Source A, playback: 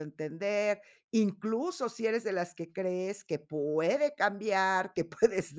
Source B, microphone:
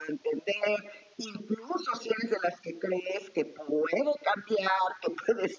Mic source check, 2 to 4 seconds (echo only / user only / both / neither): echo only